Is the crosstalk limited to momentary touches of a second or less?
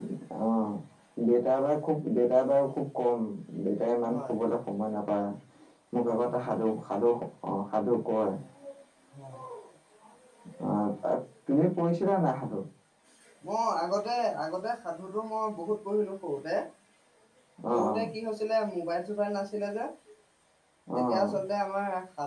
Yes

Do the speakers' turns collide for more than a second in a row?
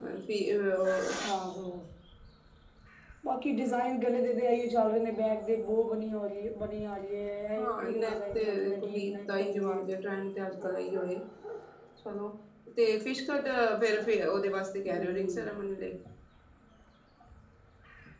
Yes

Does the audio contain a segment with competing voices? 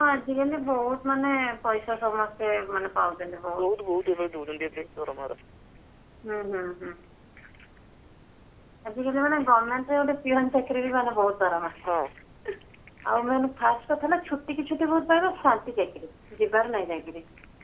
No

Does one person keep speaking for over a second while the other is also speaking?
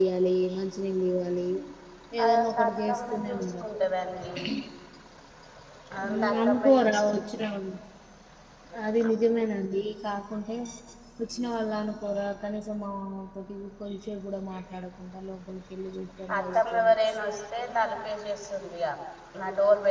Yes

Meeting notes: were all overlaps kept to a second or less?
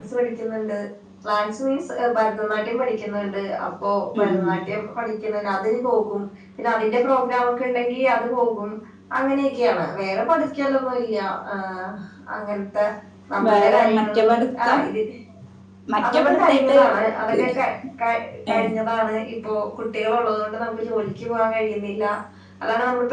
No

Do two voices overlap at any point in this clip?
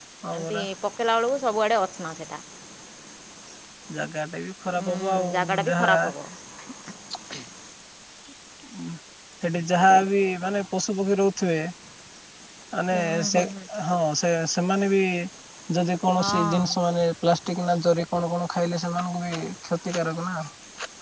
Yes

